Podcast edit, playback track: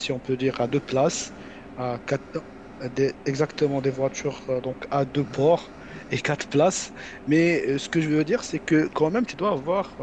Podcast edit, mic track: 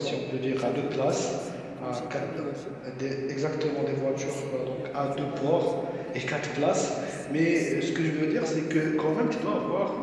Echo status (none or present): present